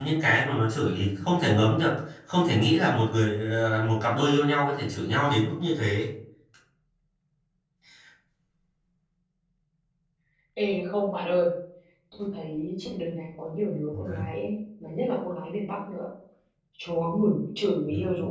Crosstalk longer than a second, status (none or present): none